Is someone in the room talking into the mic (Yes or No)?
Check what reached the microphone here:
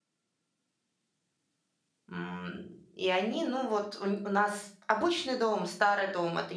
Yes